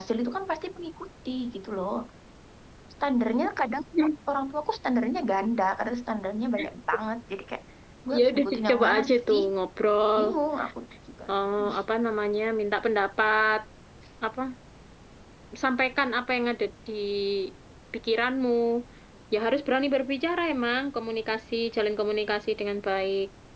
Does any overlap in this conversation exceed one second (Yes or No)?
Yes